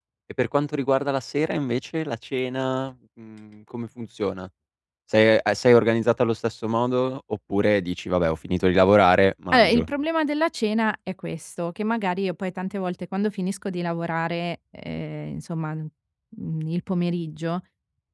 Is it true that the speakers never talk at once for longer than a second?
Yes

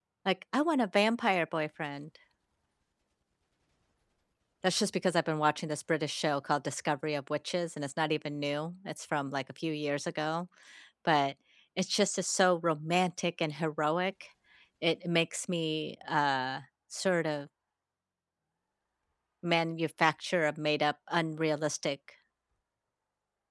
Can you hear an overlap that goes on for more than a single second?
No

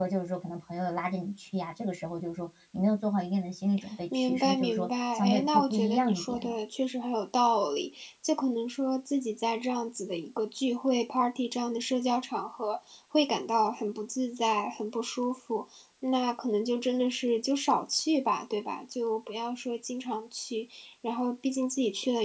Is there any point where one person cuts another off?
Yes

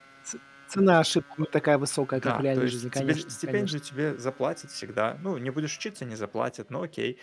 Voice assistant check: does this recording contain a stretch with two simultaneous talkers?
Yes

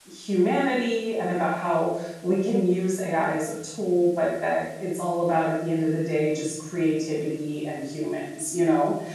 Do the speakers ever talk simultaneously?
No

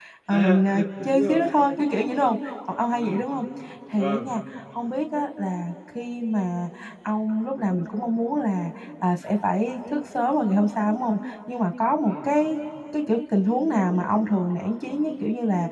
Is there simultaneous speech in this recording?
Yes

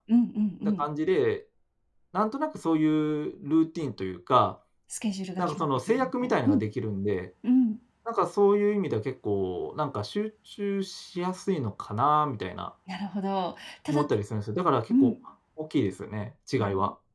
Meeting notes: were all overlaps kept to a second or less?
No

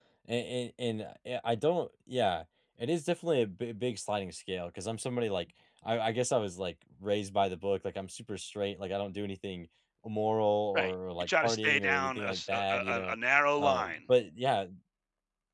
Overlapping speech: Yes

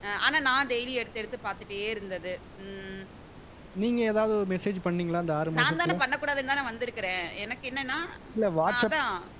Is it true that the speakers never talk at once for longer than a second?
Yes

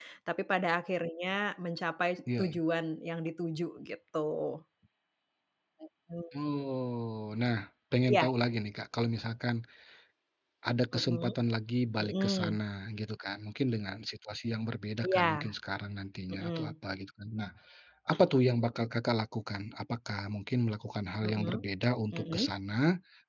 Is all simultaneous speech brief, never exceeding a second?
Yes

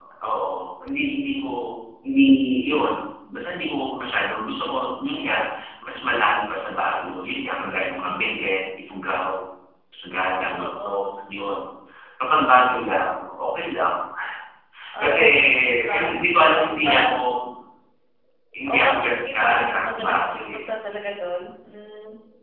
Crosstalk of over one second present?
Yes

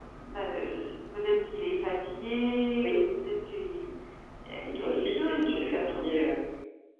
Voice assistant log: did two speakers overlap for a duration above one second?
Yes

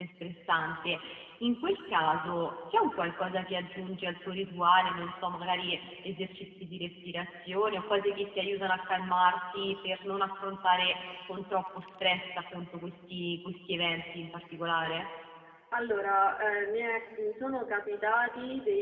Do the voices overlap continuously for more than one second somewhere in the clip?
No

